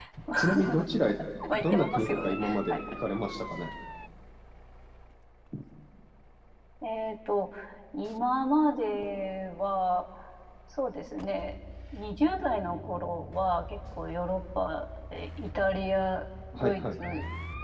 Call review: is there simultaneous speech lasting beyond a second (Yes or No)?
Yes